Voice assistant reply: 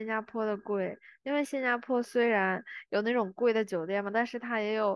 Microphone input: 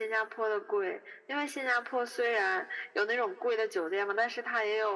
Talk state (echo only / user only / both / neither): echo only